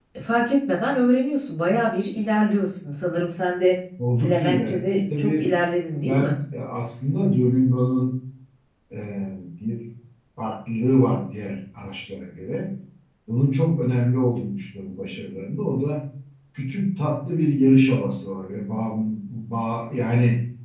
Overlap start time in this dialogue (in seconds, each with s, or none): 4.2 s